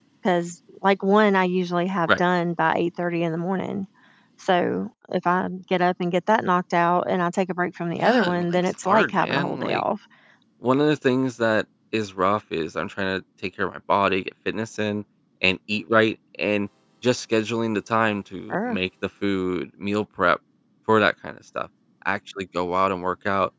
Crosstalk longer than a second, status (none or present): present